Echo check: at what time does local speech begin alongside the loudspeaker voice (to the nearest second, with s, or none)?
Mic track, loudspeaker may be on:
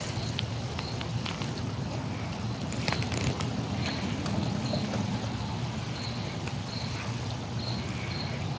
none